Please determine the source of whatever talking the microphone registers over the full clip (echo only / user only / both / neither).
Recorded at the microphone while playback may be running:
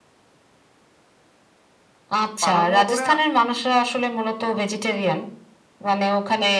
both